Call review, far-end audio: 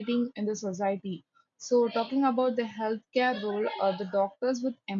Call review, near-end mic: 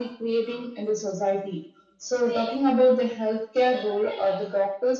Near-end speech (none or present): none